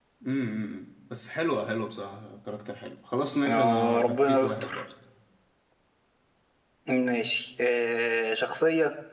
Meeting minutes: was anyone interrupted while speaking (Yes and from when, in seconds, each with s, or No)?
Yes, from 3.5 s